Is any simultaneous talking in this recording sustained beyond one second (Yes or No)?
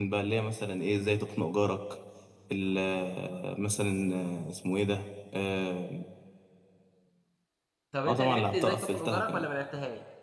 Yes